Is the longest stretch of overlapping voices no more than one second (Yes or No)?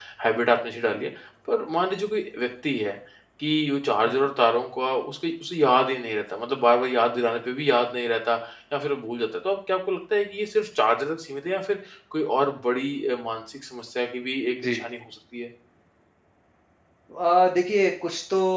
Yes